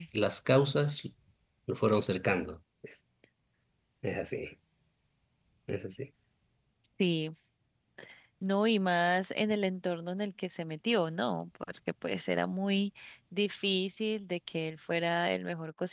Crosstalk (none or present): none